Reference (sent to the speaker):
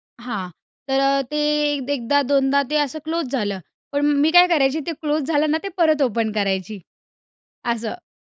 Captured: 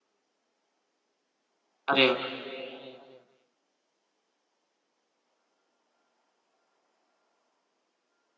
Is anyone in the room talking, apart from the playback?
Yes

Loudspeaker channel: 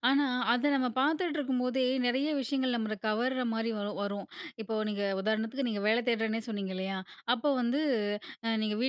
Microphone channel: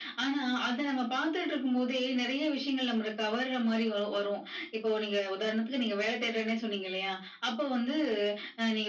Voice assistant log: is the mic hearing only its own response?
Yes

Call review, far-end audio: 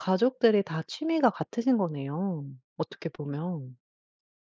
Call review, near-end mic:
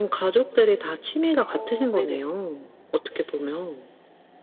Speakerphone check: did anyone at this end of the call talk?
Yes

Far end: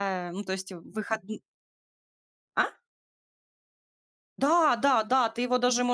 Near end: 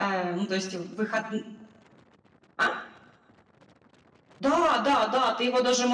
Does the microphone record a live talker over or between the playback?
No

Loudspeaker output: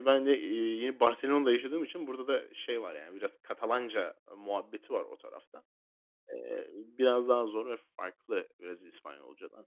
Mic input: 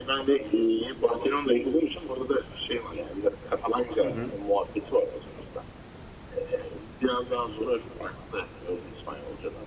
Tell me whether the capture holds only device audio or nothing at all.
No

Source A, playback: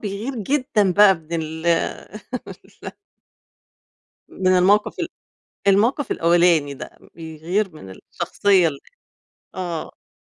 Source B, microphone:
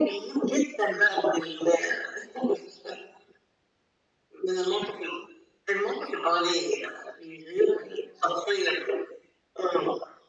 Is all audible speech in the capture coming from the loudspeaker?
Yes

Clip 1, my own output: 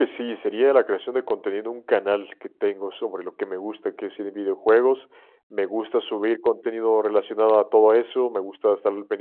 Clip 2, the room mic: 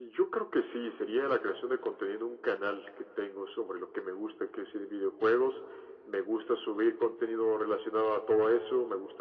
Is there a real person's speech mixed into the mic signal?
No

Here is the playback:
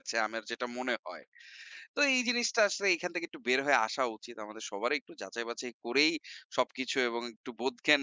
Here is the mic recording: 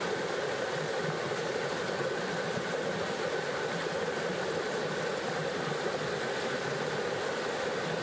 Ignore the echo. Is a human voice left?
No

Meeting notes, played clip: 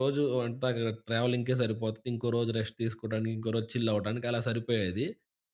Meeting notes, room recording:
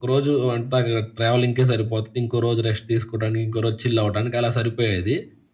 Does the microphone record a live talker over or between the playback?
No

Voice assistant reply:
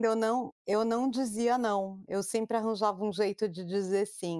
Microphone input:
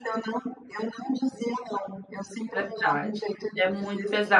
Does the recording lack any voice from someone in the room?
No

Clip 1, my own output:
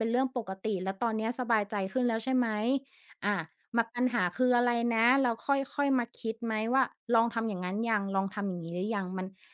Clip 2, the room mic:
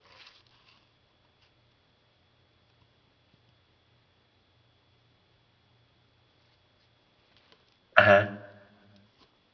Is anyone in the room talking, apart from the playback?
Yes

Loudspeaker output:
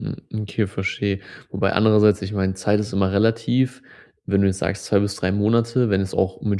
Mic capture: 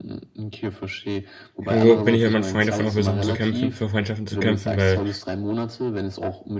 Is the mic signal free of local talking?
No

